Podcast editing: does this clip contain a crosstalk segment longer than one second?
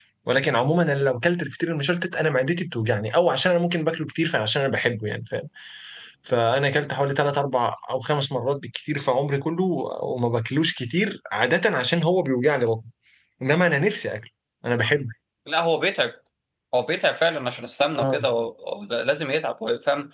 No

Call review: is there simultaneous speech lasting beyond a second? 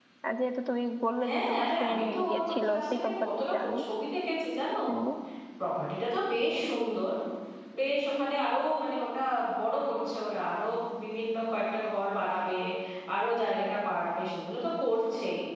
Yes, from 1.2 s

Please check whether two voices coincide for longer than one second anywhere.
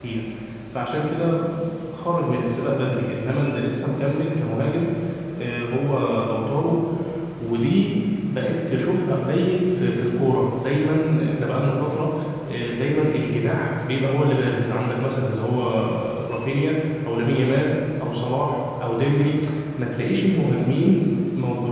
No

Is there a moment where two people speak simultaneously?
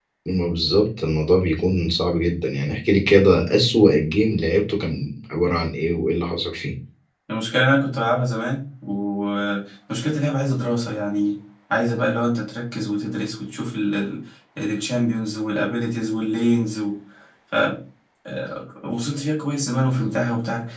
No

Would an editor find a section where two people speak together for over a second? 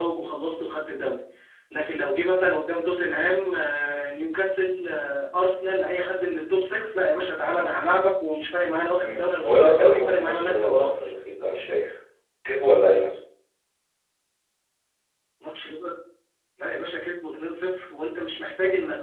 Yes, from 9.0 s

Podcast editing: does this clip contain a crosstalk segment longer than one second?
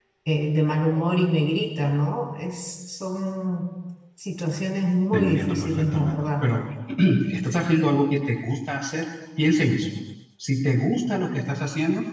Yes, from 5.1 s

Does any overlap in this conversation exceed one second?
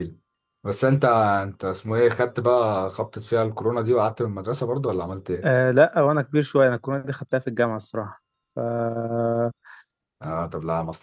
No

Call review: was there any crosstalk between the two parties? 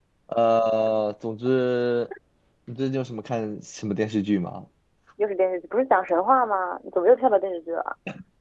No

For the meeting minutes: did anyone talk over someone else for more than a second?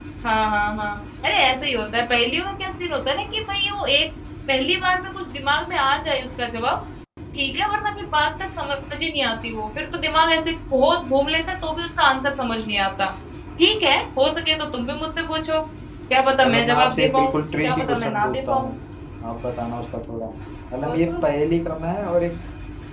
Yes, from 16.4 s

